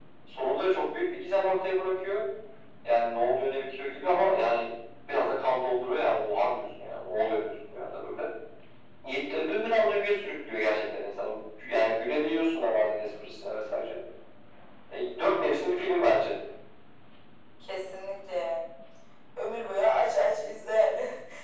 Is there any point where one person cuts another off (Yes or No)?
No